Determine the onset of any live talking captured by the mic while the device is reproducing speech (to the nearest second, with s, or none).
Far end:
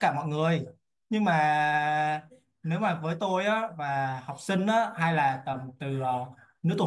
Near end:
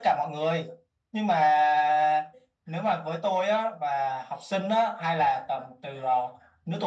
none